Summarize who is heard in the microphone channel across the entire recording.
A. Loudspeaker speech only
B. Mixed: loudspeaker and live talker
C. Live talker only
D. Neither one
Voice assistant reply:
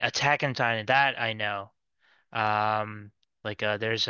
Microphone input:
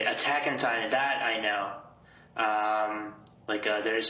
A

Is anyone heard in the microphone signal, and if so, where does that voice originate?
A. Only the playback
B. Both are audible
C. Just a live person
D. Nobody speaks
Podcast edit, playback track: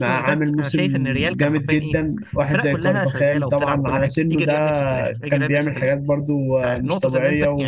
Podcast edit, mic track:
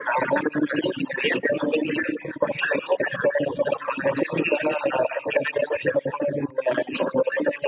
A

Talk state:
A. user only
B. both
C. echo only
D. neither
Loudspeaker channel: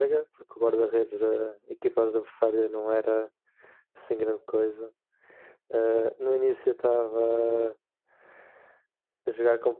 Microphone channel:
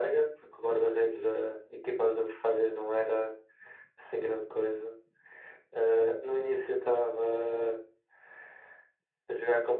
C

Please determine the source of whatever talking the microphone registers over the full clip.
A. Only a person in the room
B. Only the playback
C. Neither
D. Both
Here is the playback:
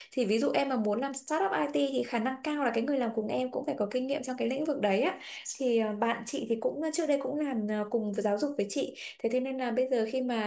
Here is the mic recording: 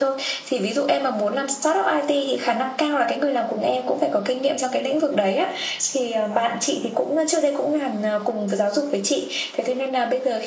B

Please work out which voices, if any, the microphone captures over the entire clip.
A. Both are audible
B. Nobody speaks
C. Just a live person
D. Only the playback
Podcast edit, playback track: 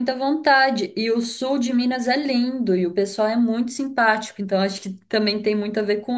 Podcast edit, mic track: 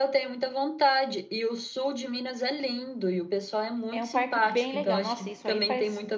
A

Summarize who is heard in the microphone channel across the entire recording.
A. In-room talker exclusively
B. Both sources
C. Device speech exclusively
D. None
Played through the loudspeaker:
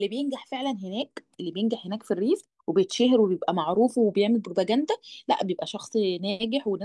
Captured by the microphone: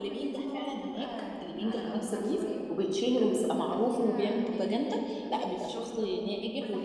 B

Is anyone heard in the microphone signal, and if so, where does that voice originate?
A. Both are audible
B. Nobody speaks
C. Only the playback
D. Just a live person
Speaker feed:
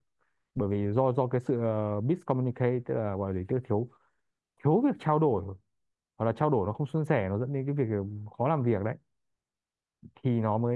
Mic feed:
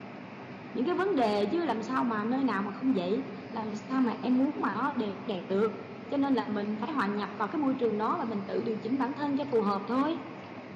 D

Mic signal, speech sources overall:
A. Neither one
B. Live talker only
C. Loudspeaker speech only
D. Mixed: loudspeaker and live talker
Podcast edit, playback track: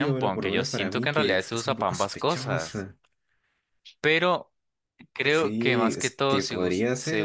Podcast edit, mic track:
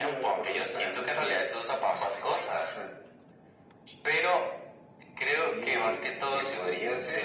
C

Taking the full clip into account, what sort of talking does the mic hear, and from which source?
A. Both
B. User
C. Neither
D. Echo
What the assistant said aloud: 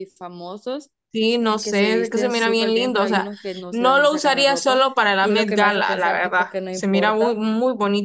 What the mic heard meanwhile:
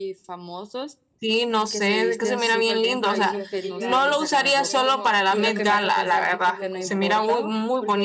A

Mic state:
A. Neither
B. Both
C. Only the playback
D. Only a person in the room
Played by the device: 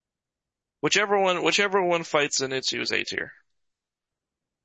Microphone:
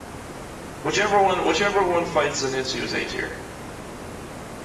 C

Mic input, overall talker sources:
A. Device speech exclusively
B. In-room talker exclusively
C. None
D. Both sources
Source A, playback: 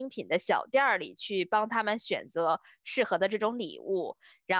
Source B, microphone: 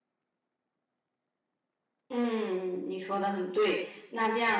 B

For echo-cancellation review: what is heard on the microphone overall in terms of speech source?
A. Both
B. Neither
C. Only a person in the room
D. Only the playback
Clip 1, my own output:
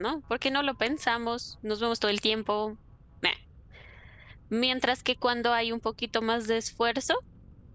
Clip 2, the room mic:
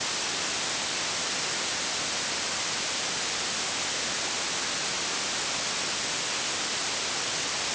B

